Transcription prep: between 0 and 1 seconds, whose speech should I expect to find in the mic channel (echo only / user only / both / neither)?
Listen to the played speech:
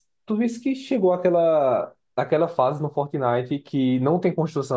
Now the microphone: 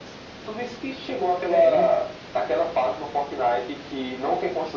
echo only